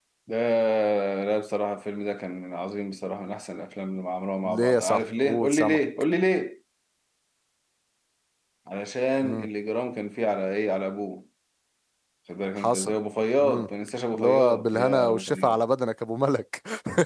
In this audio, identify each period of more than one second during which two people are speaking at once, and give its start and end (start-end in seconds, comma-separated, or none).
4.4-5.8, 14.1-15.6